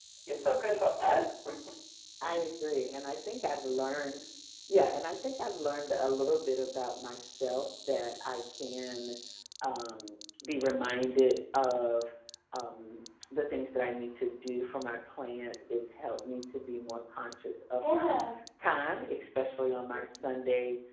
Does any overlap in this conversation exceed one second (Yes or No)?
No